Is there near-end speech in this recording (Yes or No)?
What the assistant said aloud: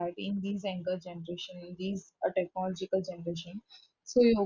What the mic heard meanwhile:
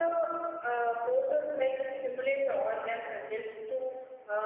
Yes